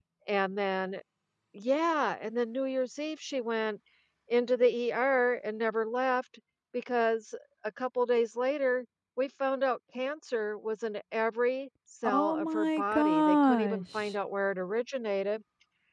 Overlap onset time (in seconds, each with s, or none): 12.0 s